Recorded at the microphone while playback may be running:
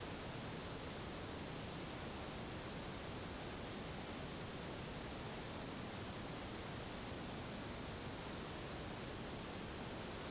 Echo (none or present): none